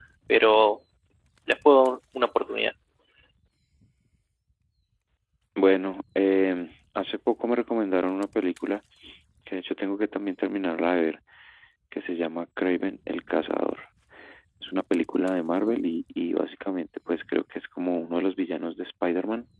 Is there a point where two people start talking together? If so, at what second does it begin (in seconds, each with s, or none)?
none